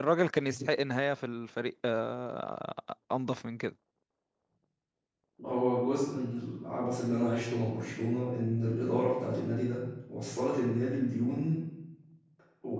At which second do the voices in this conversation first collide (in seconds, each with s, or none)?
none